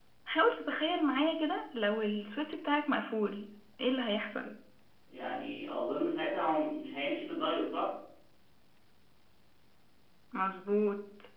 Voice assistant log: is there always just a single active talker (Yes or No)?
Yes